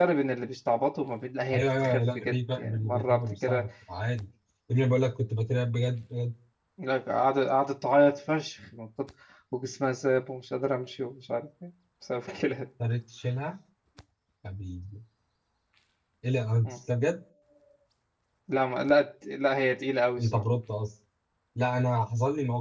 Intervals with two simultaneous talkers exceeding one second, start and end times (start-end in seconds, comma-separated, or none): 1.5-3.7